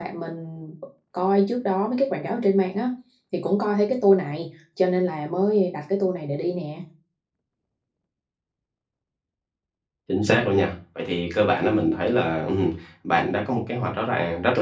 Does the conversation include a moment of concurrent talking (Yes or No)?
No